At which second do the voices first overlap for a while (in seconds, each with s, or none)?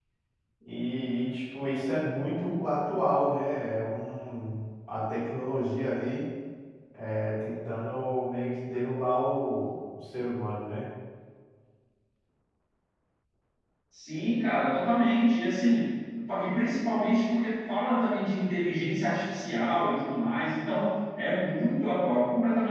none